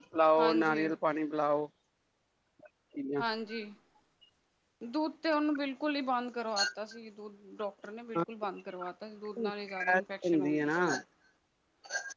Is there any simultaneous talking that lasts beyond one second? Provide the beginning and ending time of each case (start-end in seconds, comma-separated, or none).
9.4-10.9